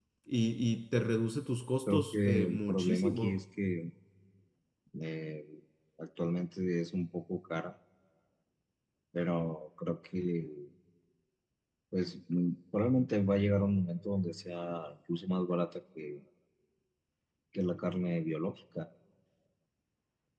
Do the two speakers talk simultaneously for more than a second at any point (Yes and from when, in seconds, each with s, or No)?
Yes, from 1.9 s